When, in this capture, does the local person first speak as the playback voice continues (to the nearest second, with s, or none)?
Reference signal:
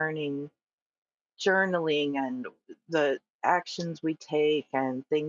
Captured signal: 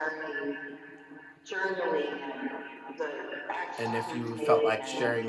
4 s